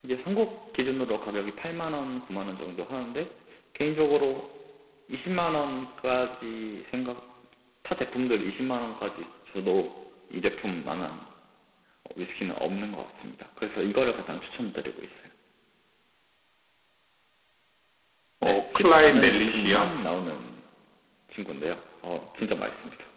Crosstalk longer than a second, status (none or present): present